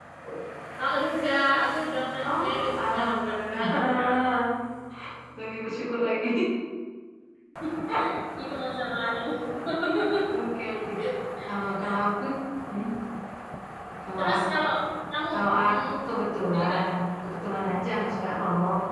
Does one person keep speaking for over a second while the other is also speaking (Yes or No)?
Yes